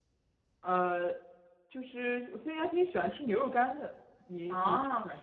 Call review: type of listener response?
taking over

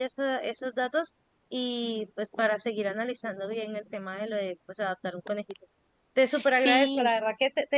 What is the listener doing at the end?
listening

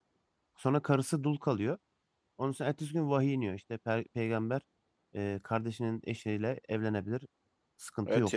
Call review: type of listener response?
taking over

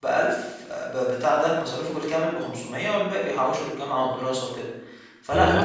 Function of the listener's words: taking over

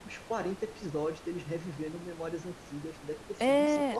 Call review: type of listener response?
taking over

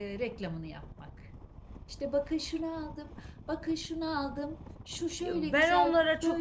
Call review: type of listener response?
taking over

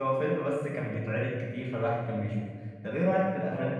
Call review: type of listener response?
listening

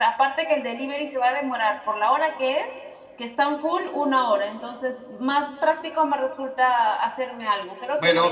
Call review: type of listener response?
taking over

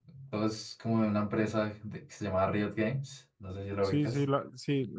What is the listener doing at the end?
taking over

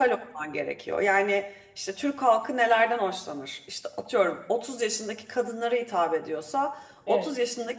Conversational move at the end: listening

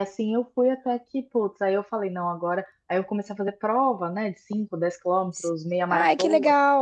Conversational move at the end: taking over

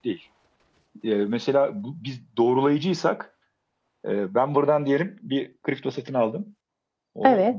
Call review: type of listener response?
listening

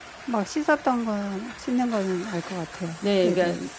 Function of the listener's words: taking over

